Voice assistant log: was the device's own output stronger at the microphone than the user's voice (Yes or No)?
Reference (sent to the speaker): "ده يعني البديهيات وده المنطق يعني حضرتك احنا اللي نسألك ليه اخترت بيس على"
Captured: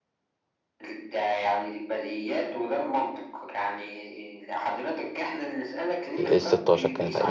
No